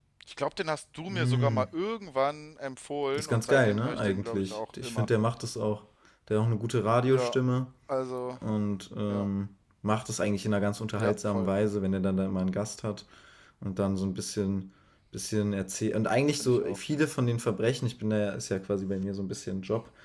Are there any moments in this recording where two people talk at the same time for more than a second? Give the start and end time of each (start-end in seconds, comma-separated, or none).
3.1-5.1